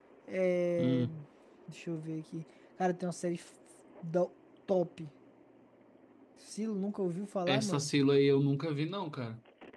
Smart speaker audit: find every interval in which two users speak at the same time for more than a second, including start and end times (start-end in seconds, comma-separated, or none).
none